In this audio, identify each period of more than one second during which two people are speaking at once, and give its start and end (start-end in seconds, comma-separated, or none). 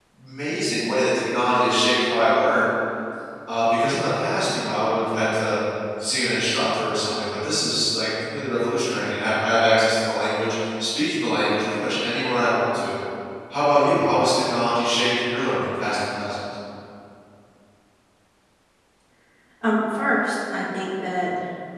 none